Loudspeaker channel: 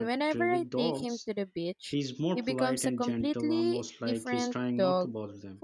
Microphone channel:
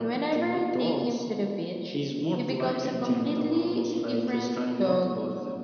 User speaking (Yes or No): No